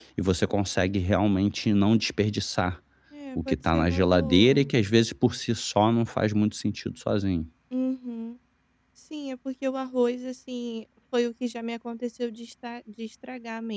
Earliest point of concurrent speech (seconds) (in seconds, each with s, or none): 3.4 s